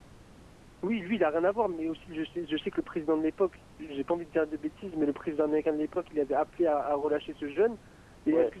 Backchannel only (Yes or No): Yes